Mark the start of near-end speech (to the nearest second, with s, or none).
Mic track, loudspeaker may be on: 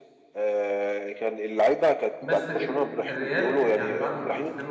2 s